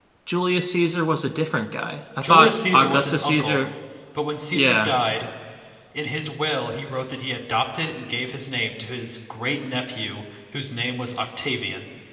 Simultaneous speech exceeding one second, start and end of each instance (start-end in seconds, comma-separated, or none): 2.2-3.6